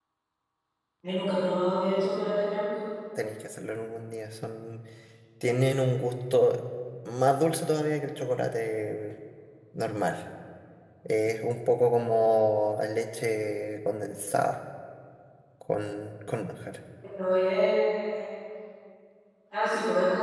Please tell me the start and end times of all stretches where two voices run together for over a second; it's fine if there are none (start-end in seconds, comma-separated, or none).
none